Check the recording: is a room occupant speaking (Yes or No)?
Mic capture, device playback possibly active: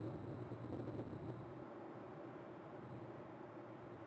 No